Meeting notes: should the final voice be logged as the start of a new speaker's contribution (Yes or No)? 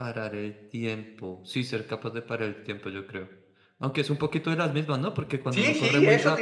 Yes